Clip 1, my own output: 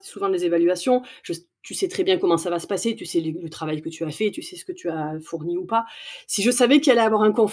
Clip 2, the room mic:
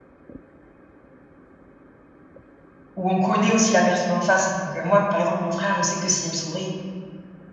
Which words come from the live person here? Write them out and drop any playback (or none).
où on connaît aussi la personne en face. Donc, heu, moi, par exemple, mon frère, je sais que s'il me sourit,